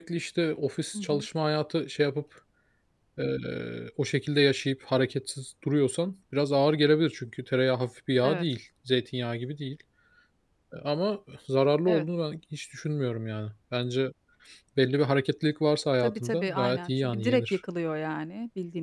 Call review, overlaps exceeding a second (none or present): present